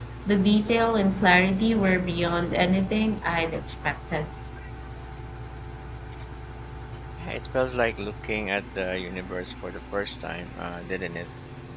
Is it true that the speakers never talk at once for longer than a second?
Yes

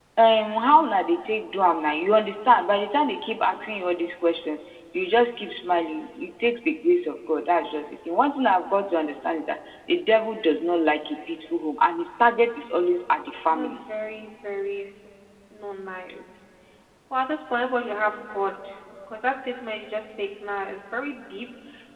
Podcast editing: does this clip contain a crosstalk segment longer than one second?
No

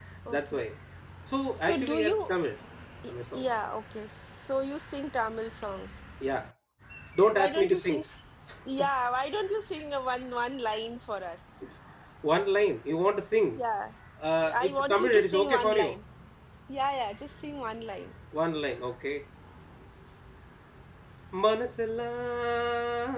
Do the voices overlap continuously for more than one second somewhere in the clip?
Yes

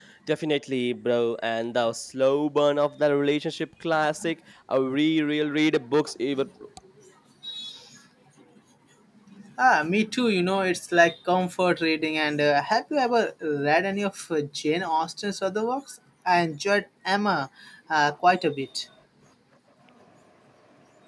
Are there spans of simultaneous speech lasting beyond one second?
No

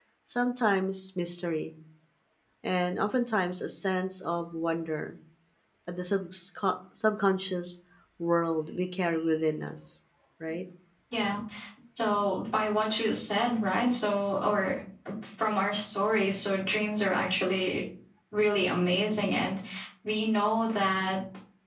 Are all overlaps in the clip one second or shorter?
Yes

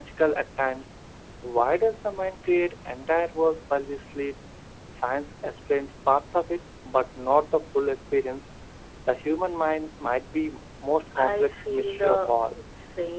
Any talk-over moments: Yes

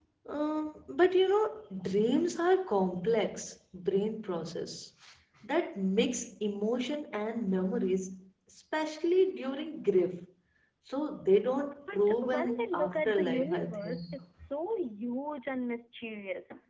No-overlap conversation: No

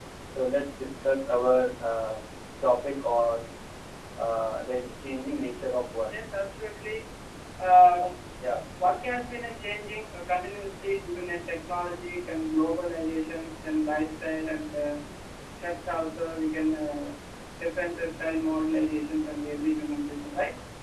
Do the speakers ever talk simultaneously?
No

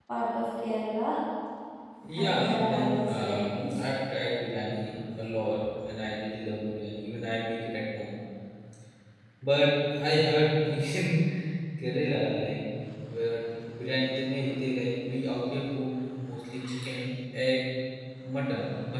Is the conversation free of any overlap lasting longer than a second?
No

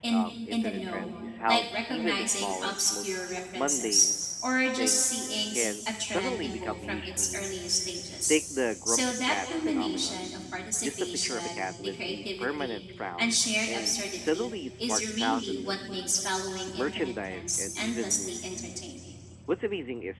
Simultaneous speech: Yes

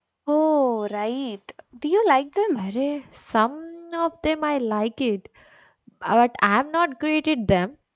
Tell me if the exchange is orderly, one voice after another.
Yes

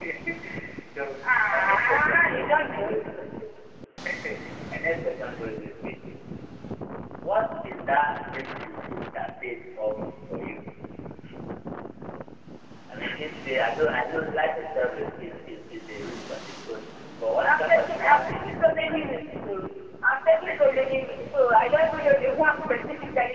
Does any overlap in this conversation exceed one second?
Yes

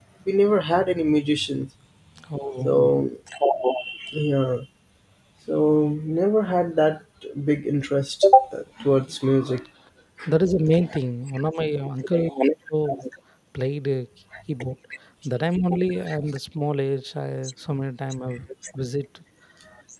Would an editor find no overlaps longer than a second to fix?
Yes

